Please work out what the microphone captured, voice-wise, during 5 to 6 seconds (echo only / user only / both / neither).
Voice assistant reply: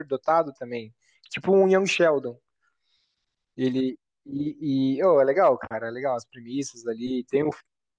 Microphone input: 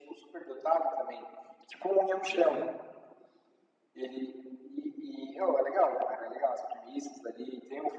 echo only